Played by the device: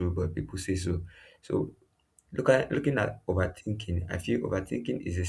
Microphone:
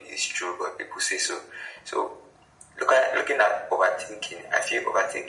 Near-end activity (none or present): none